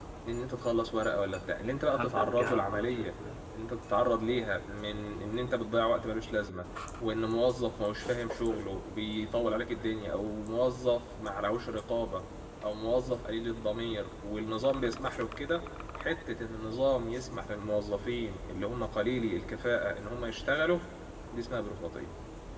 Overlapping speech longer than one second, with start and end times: 1.9-3.1

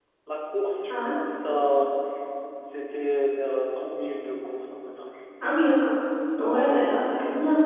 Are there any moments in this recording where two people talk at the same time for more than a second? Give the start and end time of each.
none

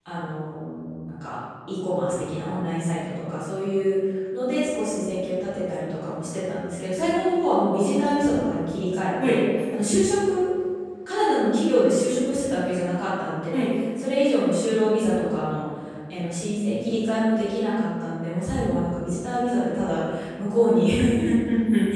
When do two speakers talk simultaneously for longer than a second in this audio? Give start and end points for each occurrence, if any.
none

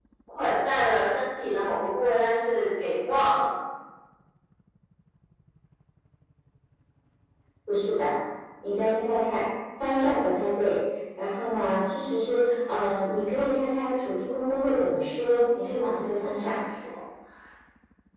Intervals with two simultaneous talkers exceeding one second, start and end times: 15.3-16.6

